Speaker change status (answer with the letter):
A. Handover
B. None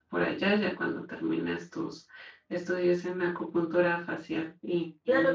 A